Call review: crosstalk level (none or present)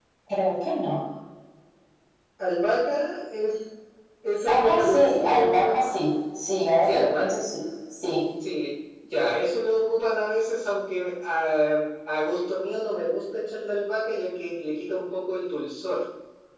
present